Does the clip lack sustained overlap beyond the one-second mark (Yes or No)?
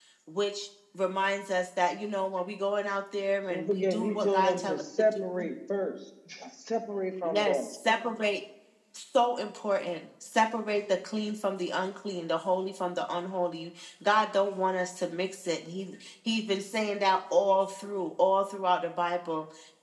No